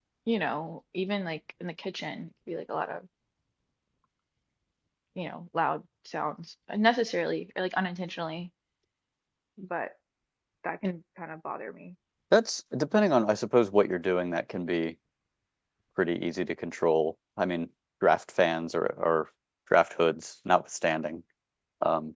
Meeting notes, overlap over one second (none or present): none